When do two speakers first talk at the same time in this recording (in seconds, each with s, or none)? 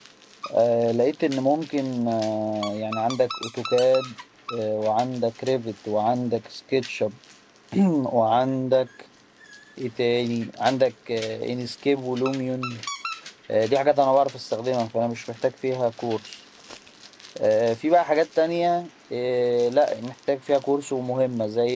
none